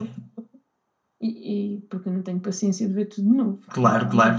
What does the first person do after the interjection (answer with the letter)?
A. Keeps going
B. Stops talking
B